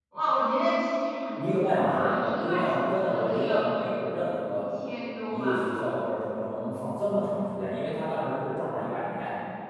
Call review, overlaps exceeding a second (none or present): present